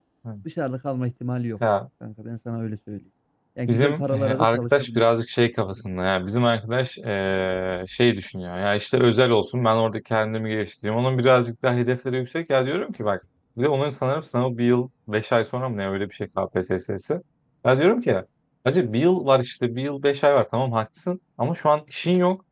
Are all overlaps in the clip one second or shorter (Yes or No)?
No